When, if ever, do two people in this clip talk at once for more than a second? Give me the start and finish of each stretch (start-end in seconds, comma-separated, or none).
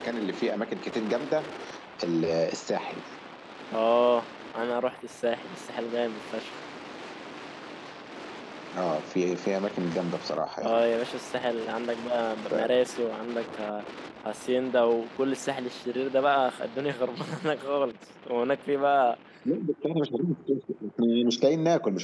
none